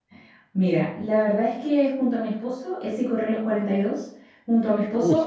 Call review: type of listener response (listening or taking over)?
listening